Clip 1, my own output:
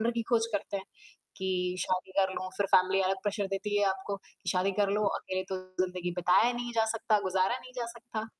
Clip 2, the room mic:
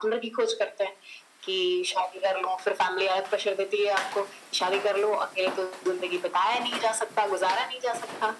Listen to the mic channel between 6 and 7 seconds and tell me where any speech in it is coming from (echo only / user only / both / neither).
echo only